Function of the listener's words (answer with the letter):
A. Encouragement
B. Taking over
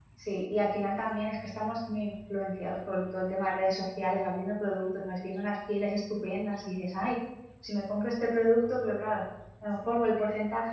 A